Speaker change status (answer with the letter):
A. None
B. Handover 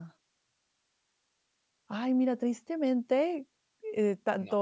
A